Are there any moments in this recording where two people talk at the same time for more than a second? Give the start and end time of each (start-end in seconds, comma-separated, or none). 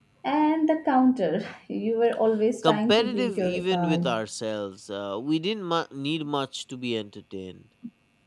2.6-4.1